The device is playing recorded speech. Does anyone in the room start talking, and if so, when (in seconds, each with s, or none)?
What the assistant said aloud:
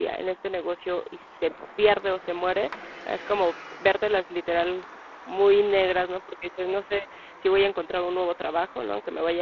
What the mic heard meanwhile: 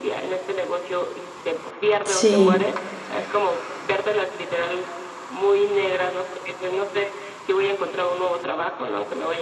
2.1 s